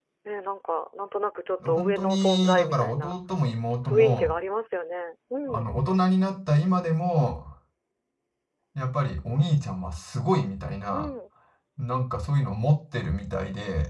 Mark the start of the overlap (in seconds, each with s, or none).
1.7 s